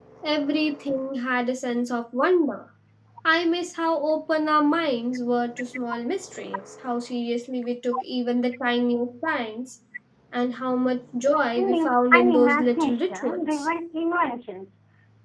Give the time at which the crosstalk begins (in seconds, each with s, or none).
11.5 s